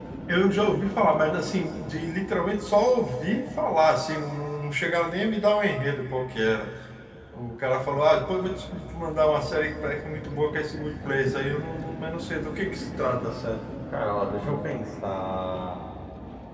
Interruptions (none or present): none